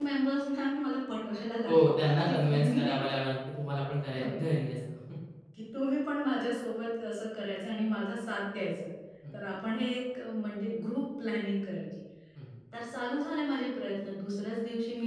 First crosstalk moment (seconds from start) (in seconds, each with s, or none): 1.7 s